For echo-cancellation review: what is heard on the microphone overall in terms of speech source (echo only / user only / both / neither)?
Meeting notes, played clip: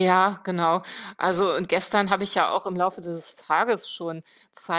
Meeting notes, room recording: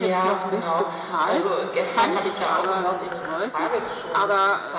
both